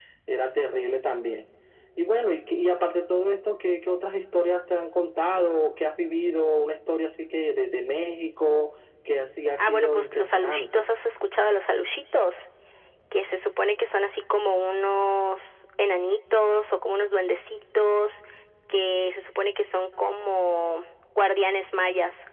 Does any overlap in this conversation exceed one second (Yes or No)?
Yes